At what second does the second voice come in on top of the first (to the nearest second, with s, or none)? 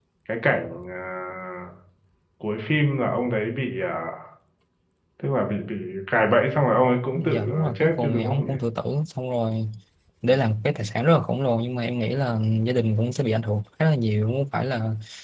7 s